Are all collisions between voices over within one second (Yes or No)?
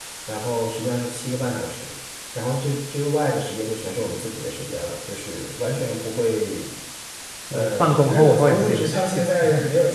No